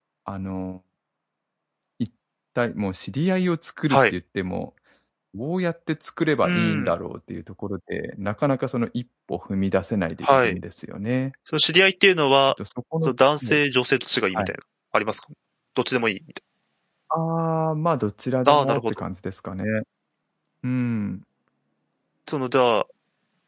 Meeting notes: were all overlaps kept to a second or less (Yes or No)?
Yes